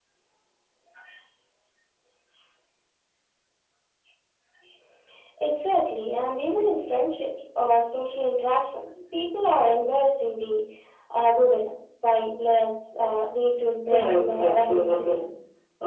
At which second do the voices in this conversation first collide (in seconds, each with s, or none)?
13.9 s